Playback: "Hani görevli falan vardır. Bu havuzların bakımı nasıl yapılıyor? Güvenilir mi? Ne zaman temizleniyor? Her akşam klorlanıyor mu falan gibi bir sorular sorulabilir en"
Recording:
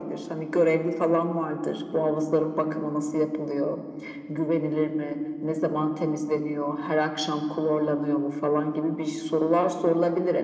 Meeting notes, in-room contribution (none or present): none